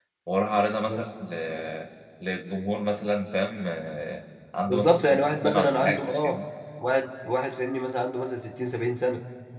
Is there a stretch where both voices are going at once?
Yes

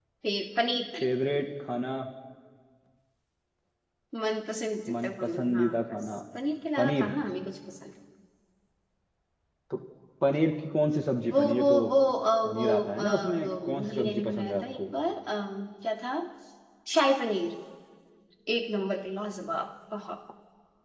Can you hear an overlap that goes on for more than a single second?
Yes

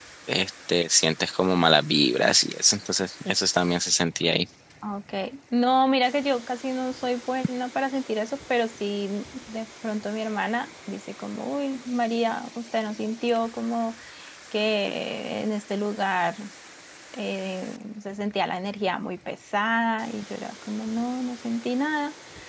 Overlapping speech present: No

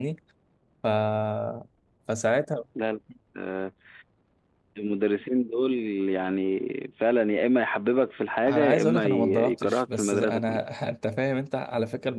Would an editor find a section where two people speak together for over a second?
Yes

